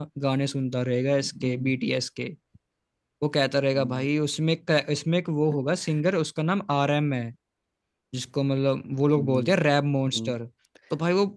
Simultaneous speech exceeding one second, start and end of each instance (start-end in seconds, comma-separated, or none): none